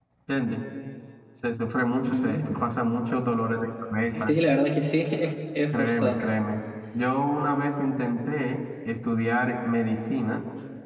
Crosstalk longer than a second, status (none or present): none